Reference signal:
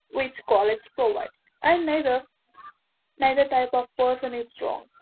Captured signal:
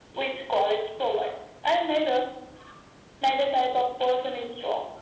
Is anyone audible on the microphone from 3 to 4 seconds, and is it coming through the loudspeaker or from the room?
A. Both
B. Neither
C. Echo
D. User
C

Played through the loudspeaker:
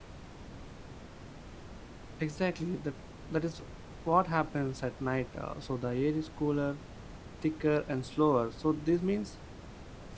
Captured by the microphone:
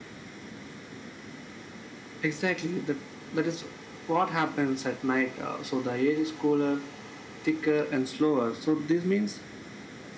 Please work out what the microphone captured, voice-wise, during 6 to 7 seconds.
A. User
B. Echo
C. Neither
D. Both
B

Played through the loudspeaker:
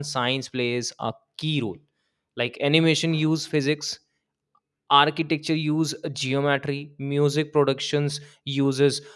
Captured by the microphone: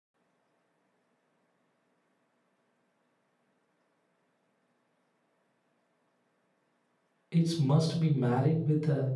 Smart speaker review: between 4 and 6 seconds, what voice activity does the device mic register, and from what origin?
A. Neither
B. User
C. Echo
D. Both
A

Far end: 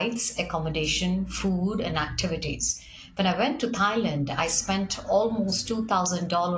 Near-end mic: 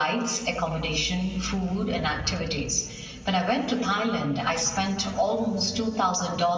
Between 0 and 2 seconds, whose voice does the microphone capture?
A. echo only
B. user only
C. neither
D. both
A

